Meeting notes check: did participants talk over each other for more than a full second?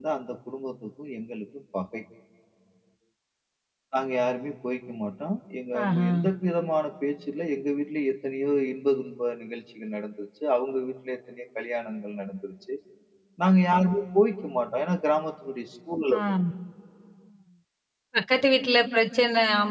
No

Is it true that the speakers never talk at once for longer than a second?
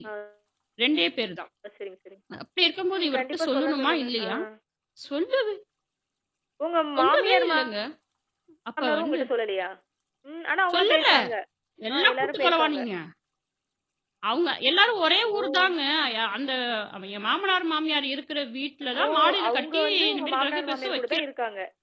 No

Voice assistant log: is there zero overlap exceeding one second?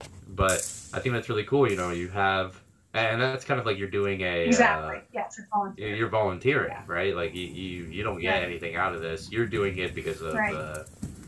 Yes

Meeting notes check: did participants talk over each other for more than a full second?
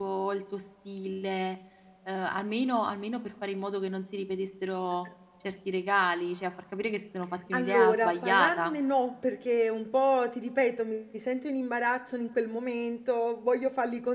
Yes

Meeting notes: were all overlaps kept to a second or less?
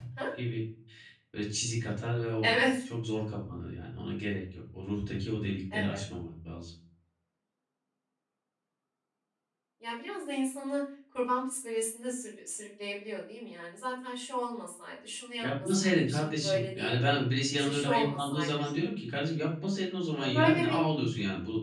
No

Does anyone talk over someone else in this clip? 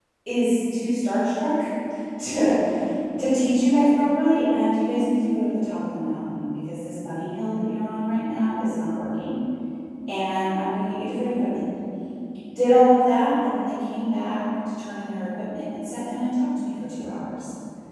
No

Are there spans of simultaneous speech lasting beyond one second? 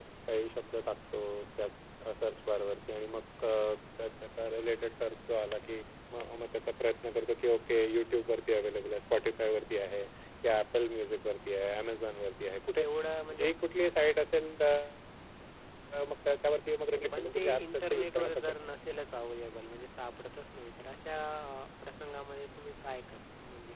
Yes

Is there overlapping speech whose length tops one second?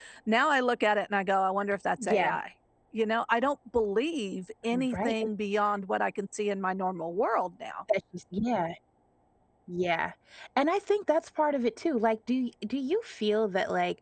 No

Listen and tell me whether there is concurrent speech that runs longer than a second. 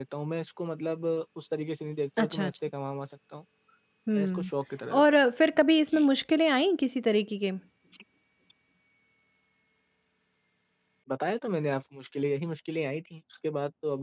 No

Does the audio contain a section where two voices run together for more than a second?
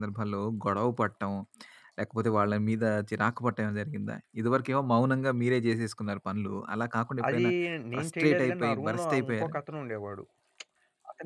Yes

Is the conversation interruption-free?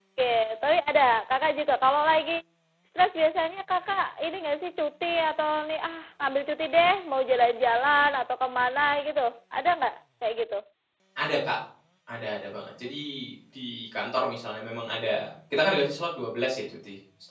Yes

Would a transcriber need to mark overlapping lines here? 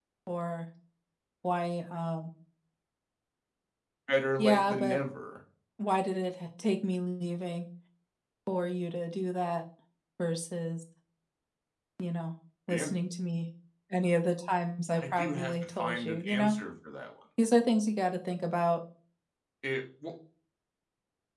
Yes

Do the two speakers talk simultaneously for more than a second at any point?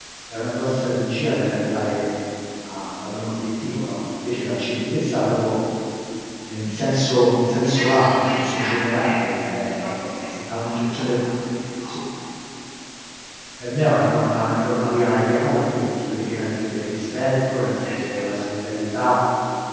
Yes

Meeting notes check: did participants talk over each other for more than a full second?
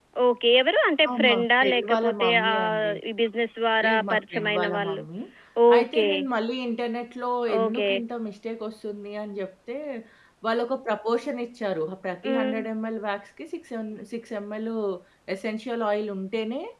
Yes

